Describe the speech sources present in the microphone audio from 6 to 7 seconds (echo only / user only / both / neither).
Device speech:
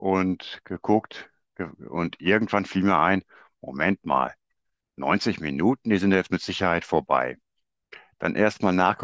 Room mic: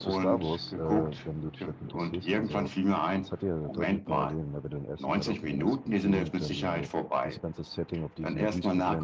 both